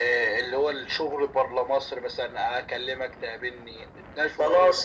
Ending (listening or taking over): taking over